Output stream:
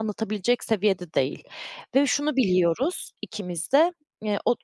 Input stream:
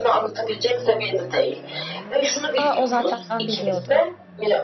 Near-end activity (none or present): present